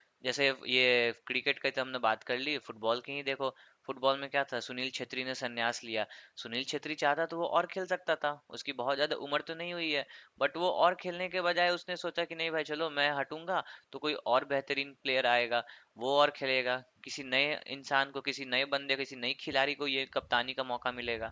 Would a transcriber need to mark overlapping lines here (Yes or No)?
No